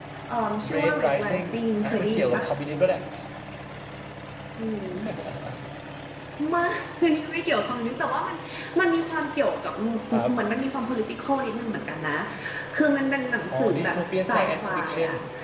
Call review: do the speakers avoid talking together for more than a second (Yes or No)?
No